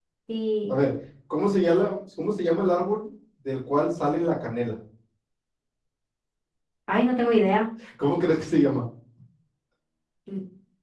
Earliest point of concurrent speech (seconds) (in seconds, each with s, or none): none